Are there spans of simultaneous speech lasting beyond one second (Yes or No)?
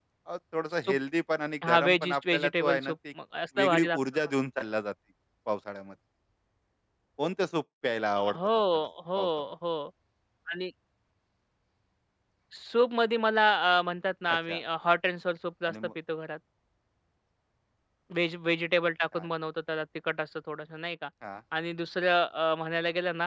Yes